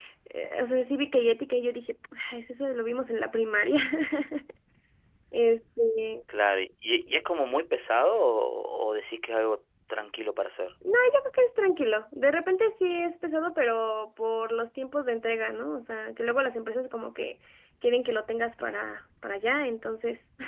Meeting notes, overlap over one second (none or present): none